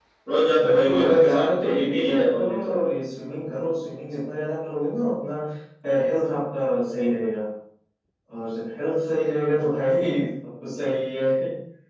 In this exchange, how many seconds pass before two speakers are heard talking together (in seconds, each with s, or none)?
0.6 s